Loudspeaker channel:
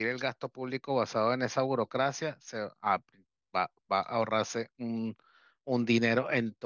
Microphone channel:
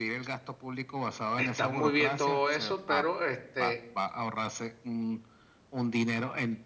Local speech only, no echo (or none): Está muy bien todo eso, pero este,